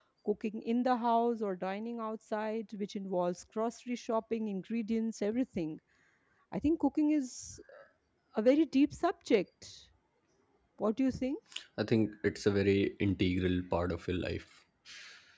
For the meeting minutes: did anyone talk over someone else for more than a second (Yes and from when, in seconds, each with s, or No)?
No